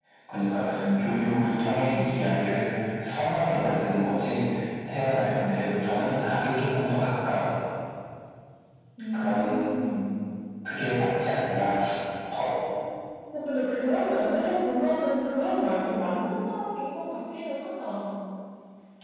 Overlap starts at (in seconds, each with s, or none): 0.8 s